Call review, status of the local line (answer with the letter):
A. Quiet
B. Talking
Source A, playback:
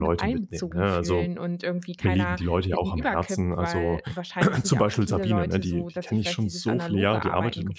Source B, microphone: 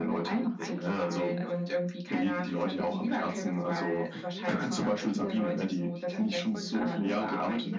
B